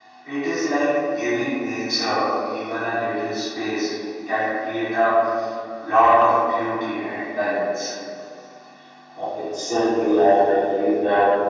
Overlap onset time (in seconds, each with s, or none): none